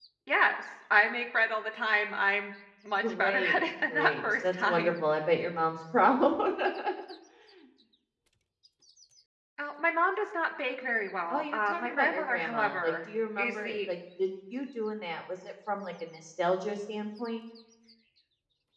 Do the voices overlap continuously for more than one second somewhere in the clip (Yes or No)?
Yes